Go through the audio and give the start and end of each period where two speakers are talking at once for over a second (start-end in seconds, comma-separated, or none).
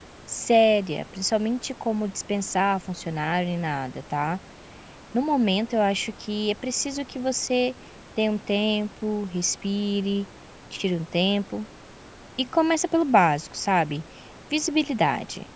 none